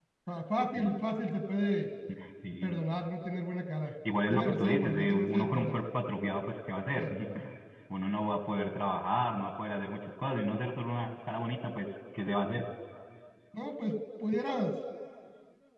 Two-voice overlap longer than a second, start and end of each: 4.3-5.8

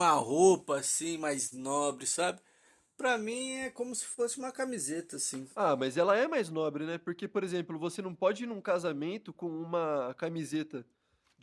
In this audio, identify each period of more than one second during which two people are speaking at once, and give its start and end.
none

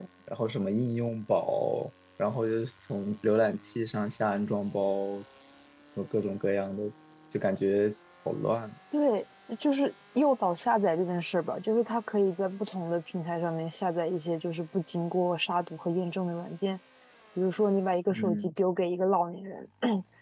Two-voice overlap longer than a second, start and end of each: none

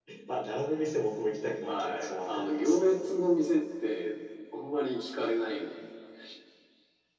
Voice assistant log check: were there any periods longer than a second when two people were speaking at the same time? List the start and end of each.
1.6-3.0

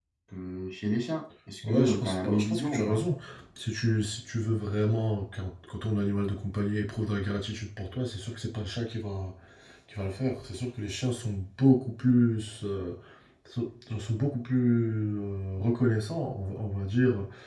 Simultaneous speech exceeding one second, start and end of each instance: 1.7-3.0

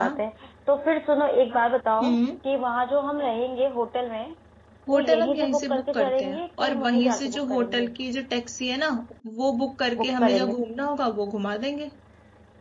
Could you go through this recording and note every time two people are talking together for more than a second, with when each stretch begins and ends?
4.9-7.9

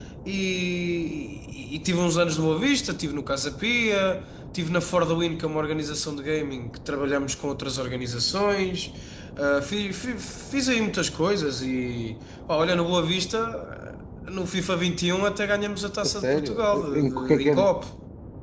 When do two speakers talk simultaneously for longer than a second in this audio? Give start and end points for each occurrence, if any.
16.0-17.7

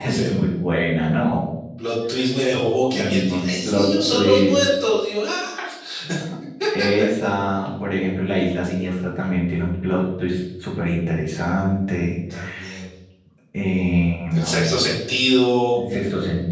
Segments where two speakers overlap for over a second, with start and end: 3.0-4.7

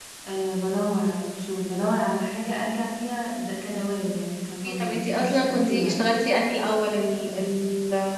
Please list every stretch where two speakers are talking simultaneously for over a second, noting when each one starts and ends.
4.6-6.0

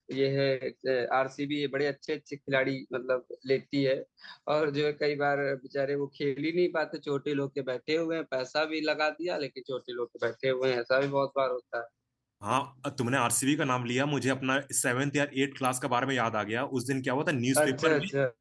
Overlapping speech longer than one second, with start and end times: none

